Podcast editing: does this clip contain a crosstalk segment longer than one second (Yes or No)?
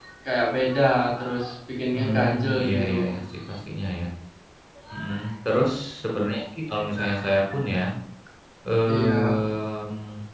Yes